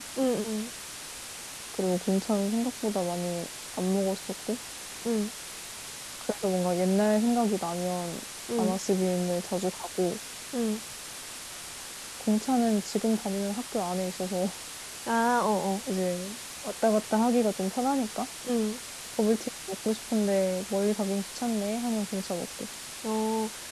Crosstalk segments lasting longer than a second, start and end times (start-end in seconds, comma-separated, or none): none